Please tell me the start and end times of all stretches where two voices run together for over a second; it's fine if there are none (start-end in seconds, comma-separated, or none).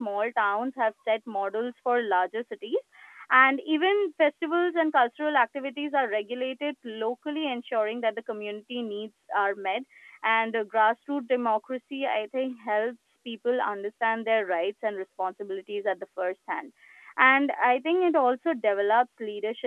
none